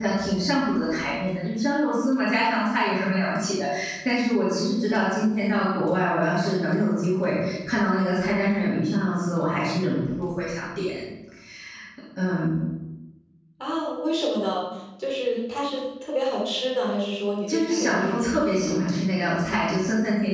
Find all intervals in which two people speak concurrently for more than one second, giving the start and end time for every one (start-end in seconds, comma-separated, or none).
17.5-18.7